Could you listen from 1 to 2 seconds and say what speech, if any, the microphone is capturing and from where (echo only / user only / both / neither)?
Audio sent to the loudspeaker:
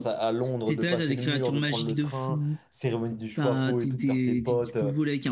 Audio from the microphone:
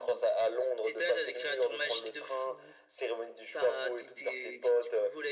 echo only